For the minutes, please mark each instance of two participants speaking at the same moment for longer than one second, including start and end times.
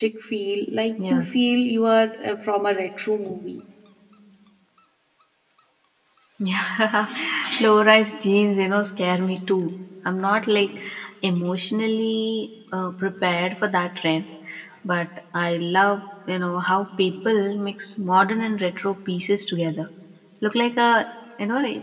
none

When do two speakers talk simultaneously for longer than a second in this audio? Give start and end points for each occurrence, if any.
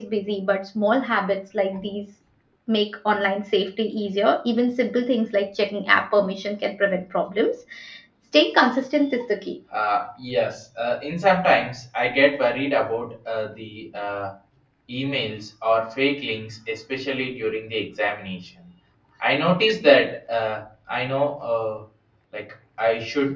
none

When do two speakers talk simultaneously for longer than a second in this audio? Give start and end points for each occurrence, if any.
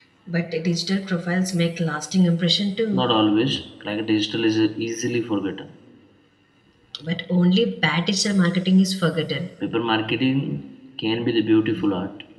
none

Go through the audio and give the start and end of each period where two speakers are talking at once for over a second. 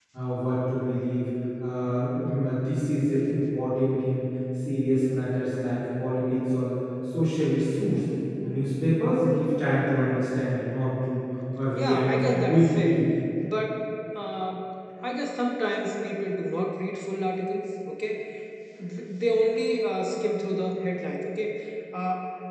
11.7-13.0

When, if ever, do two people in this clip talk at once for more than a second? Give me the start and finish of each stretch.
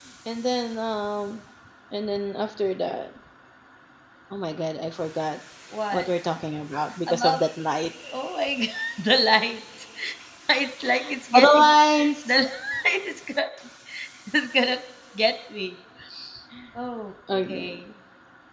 none

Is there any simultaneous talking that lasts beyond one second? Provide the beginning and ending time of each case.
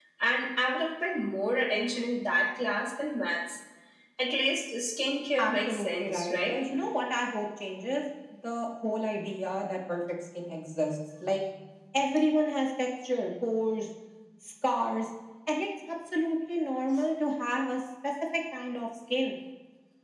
5.4-6.6

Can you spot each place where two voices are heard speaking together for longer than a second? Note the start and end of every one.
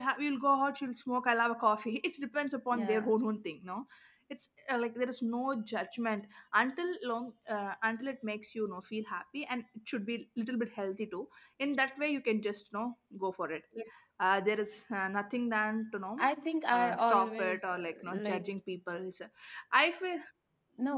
16.7-18.5

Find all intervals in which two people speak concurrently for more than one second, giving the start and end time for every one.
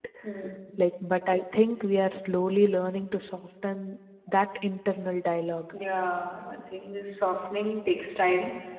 none

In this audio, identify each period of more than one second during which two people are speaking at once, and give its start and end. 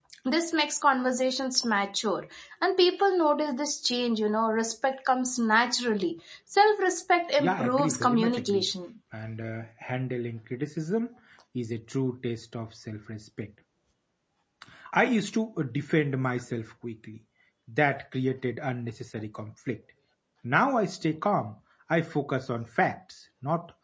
7.4-8.7

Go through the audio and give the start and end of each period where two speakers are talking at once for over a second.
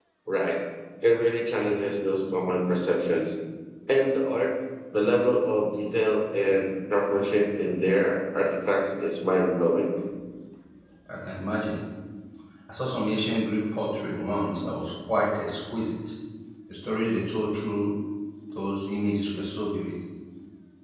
none

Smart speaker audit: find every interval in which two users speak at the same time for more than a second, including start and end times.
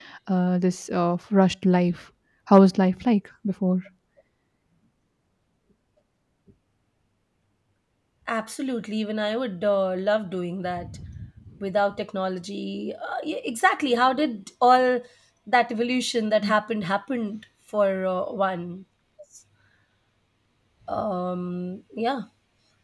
none

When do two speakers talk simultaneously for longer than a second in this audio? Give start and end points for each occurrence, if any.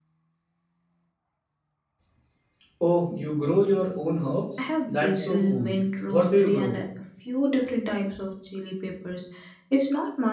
4.6-6.7

